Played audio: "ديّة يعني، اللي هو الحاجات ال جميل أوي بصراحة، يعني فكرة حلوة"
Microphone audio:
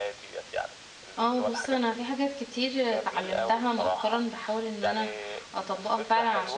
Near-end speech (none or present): present